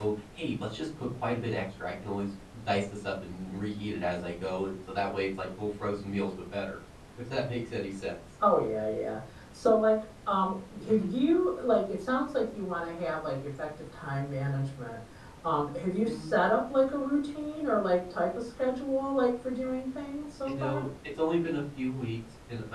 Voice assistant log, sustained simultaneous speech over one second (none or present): none